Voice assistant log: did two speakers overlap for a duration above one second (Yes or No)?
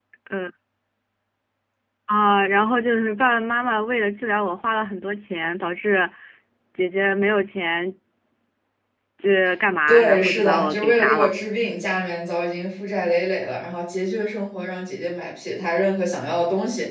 Yes